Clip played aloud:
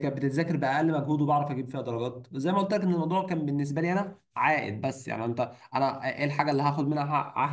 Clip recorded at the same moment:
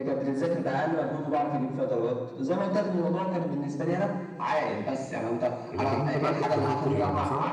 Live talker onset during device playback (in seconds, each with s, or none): 5.7 s